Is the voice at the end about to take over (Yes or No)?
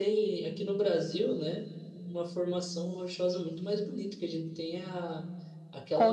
No